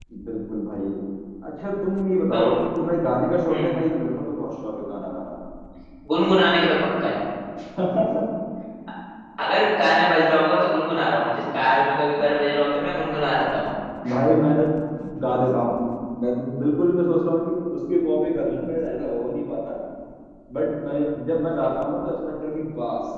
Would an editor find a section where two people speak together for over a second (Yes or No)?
No